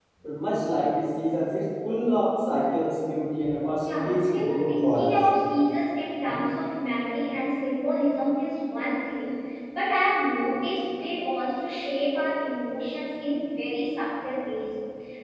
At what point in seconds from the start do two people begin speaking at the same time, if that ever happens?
3.8 s

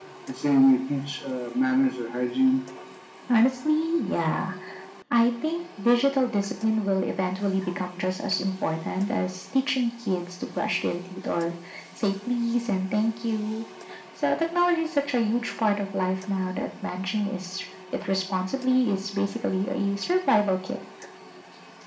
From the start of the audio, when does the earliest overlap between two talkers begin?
none

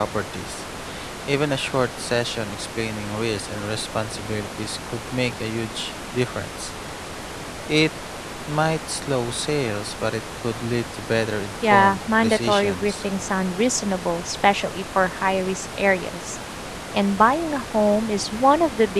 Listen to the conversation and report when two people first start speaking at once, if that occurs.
11.6 s

